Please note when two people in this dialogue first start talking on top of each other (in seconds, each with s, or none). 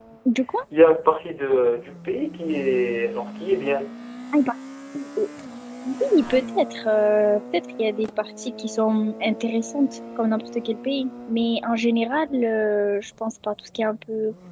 none